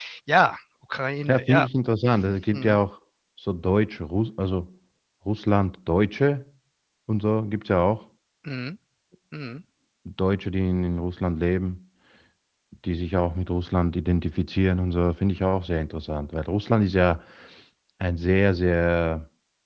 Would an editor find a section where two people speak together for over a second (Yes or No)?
No